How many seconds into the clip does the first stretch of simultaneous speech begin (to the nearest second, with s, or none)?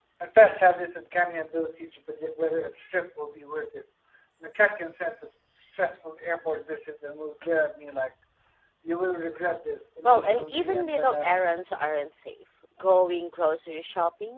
10 s